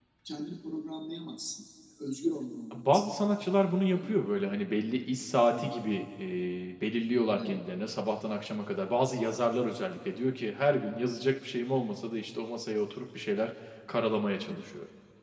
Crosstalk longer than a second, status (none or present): none